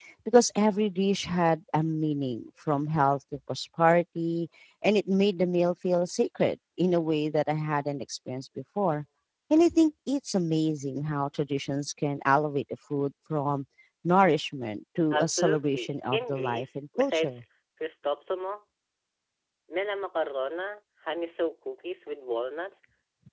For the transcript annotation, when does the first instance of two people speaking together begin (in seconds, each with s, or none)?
15.1 s